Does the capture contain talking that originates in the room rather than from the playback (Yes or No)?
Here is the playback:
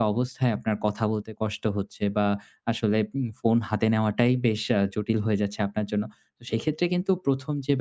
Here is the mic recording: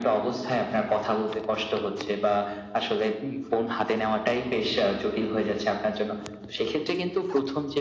No